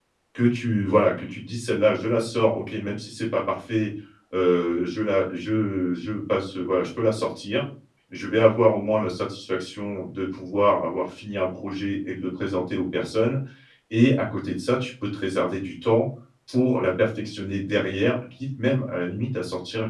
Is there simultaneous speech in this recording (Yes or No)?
No